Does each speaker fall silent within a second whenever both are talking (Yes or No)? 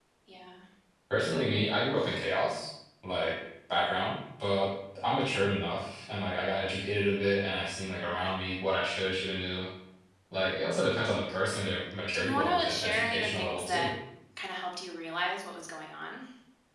No